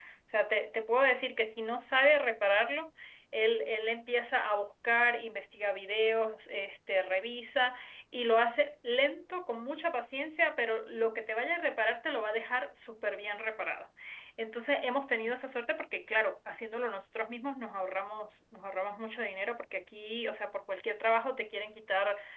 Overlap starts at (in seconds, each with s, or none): none